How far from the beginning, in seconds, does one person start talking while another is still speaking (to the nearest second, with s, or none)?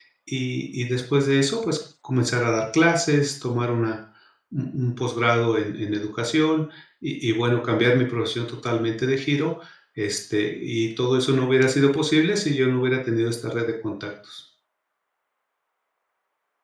none